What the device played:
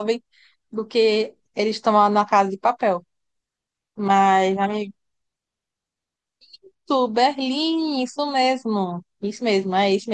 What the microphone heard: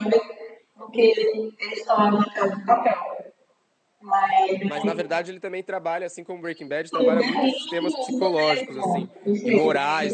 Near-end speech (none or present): present